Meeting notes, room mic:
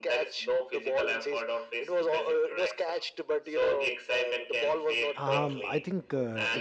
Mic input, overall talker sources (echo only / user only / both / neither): both